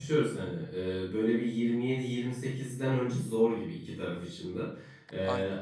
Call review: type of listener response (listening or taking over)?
listening